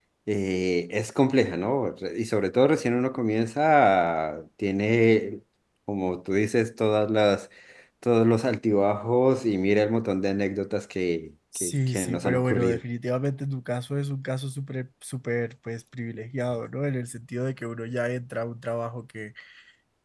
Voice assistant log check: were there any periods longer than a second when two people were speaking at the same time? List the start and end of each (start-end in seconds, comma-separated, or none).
11.6-12.8